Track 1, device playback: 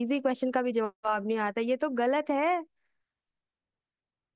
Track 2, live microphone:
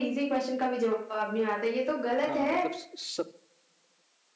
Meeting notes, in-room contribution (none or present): present